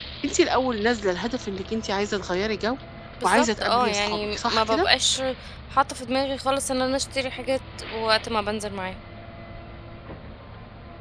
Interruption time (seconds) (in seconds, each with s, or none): 3.2 s